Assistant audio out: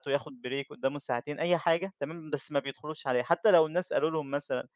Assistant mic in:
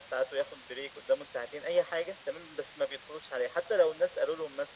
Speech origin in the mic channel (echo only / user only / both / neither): echo only